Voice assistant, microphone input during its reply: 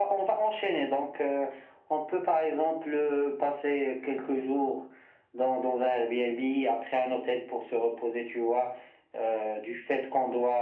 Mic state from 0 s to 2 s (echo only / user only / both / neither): echo only